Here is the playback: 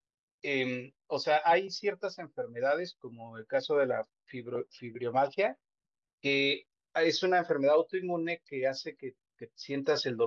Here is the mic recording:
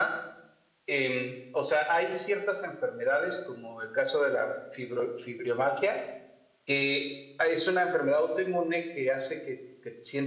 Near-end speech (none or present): none